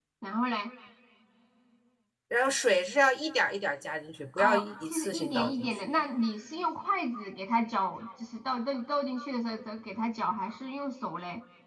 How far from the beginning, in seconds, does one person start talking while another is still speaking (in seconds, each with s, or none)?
4.4 s